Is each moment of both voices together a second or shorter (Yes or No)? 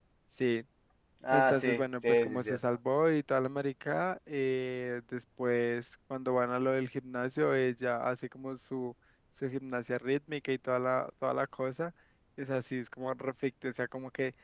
No